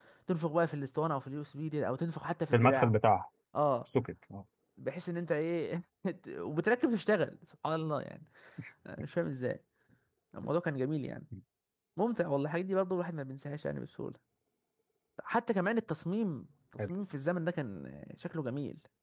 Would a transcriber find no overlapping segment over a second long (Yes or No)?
Yes